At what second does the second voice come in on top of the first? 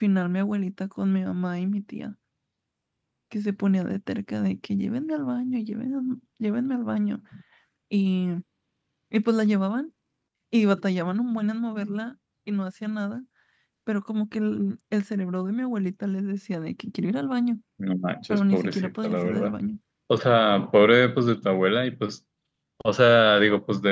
18.3 s

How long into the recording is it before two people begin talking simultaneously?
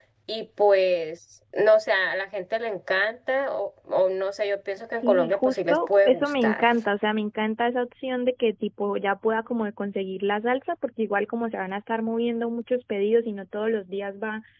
5.0 s

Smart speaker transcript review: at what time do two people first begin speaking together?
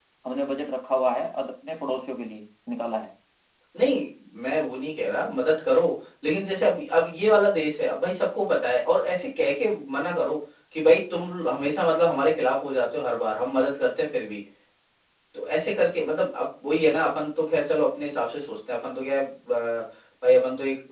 none

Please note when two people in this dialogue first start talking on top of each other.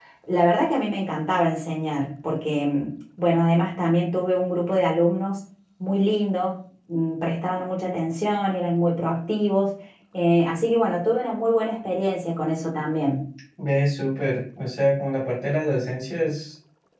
none

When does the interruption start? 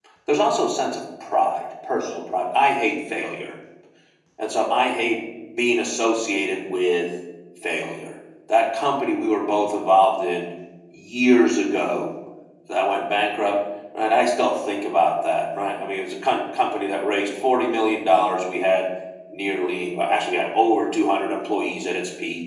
none

